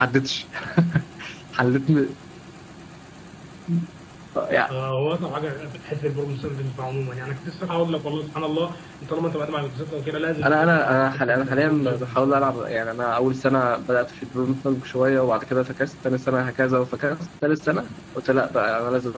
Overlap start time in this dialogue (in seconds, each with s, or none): 10.4 s